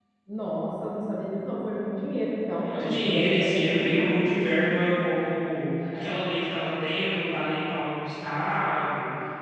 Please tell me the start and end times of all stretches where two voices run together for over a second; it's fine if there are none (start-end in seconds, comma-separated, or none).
2.7-4.8